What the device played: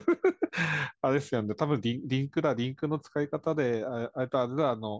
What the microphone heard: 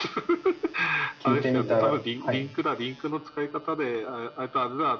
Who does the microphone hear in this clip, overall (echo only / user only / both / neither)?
both